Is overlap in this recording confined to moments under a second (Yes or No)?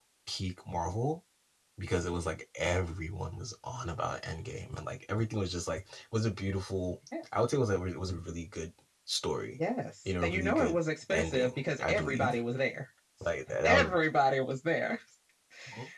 No